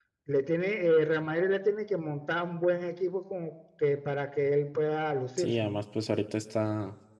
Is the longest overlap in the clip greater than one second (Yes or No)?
No